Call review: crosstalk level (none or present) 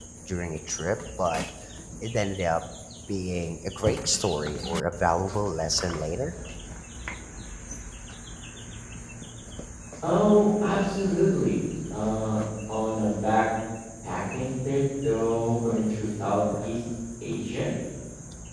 none